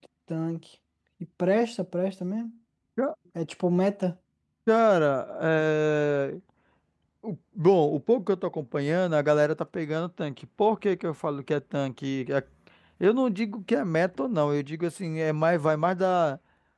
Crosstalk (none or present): none